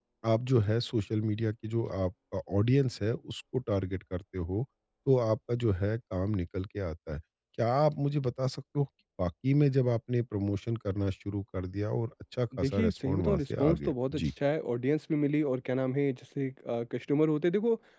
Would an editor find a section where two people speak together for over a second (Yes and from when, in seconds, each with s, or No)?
Yes, from 12.5 s